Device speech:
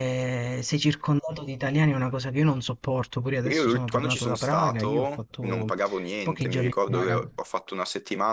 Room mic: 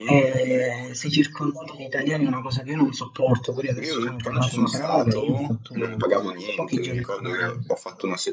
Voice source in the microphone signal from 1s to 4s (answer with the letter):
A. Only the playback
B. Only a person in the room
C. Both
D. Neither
A